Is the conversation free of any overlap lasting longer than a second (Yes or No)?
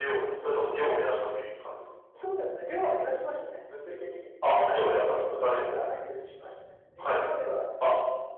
No